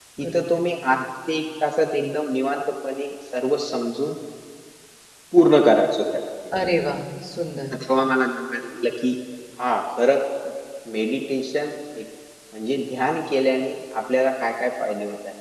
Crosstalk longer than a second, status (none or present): none